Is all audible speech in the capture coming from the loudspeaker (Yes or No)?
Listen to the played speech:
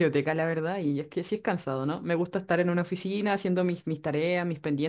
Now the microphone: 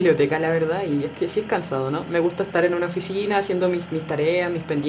Yes